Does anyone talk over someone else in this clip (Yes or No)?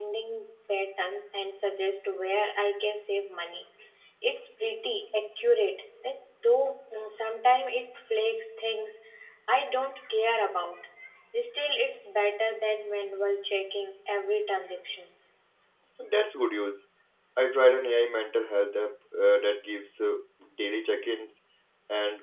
No